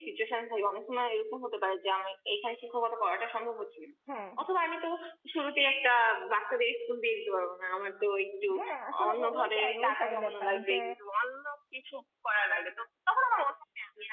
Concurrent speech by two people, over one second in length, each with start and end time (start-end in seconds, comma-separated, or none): 9.1-10.7